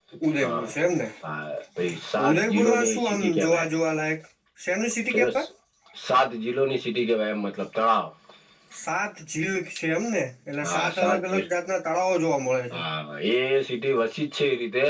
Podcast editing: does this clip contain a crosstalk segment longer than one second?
Yes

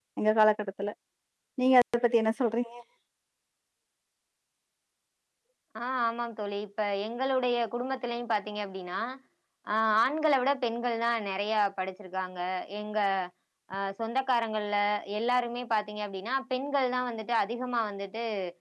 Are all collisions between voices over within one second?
Yes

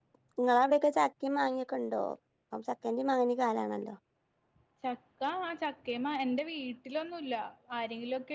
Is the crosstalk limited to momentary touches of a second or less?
Yes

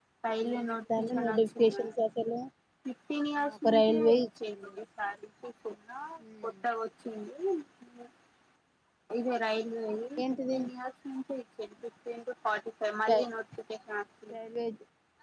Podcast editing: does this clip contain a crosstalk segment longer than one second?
Yes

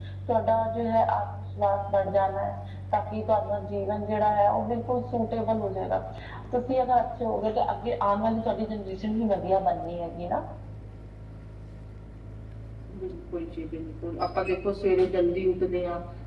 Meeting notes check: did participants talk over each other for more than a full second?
No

